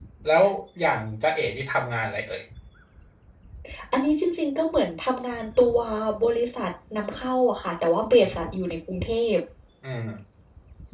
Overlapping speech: No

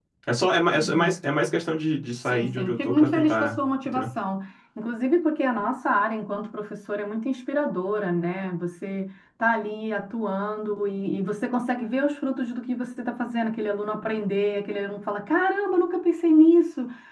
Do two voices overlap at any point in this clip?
Yes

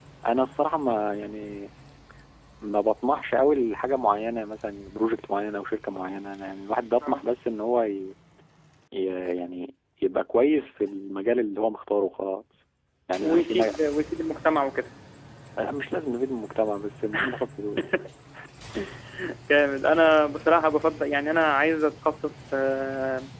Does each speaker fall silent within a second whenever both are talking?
Yes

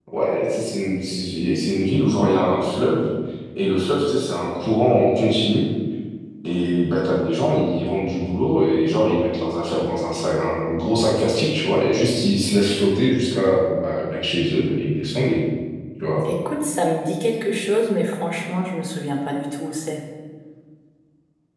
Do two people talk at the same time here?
No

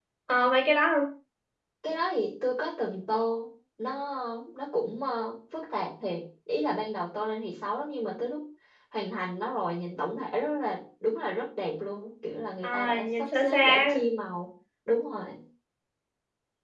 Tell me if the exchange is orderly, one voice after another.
No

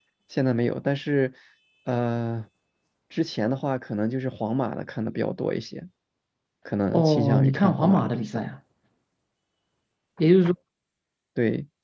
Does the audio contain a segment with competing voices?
Yes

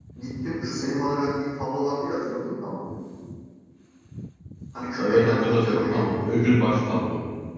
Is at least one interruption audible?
Yes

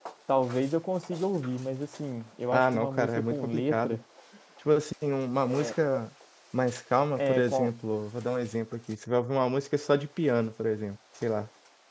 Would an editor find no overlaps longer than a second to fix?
No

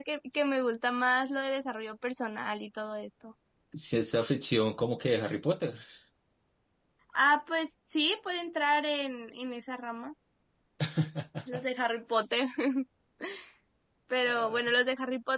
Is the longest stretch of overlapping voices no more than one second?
Yes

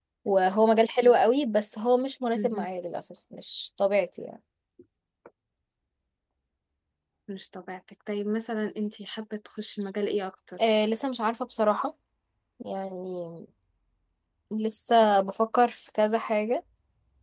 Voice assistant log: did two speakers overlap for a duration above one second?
No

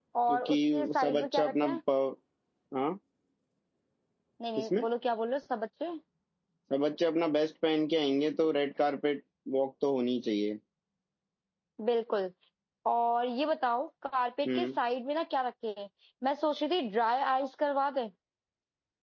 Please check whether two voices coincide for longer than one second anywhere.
Yes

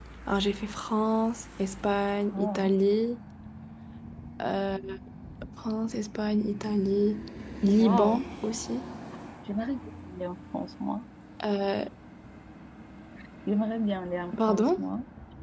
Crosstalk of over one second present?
No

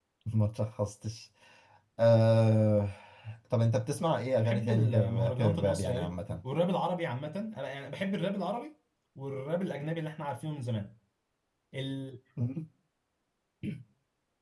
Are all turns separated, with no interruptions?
No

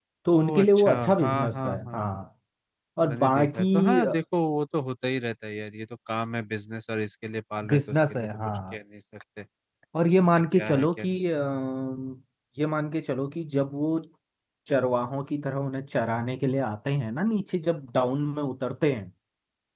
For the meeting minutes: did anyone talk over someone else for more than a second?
Yes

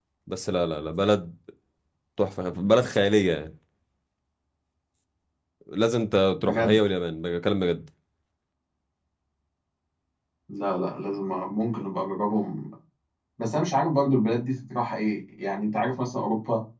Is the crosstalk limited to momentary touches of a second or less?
Yes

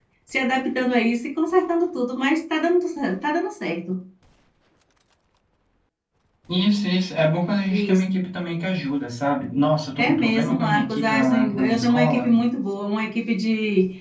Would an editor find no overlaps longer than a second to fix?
No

